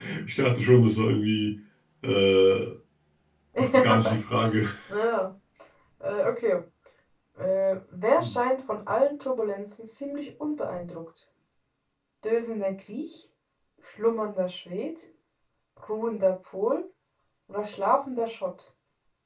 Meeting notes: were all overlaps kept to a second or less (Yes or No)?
Yes